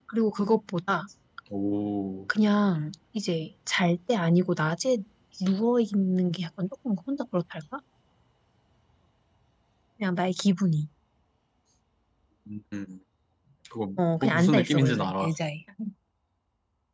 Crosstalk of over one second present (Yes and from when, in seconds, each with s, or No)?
Yes, from 14.0 s